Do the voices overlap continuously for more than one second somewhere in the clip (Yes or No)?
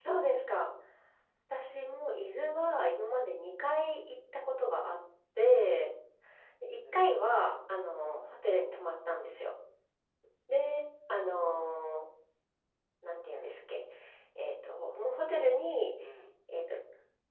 No